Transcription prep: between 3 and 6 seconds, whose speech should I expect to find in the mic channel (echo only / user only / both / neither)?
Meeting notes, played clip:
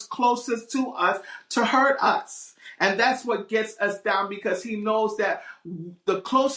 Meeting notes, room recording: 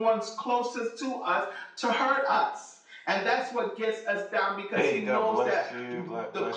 both